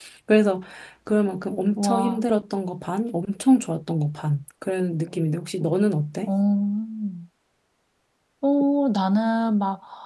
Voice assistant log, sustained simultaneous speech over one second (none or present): none